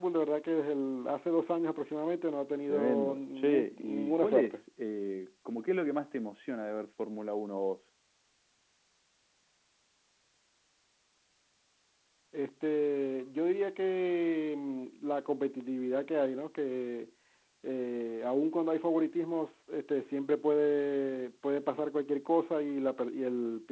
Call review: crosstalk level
present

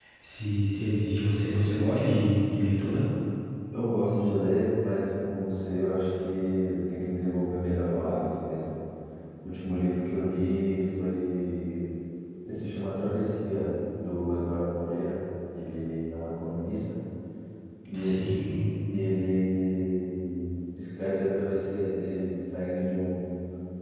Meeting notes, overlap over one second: none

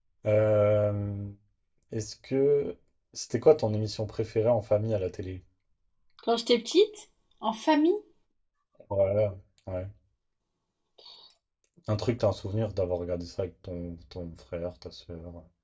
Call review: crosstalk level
none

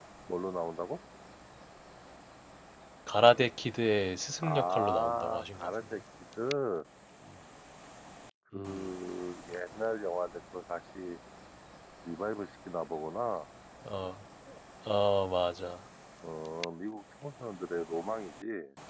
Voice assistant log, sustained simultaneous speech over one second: present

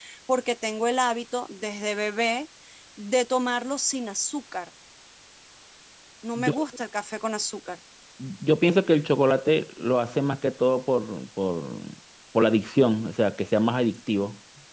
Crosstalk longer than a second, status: none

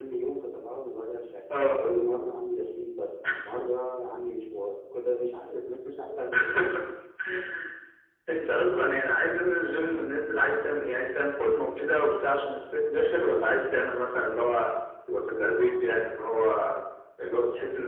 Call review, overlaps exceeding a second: none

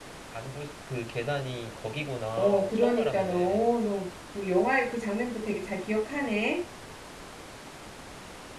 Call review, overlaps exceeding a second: present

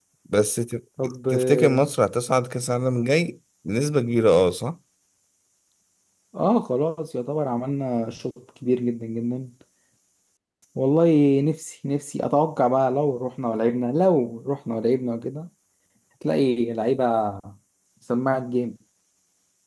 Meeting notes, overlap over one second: none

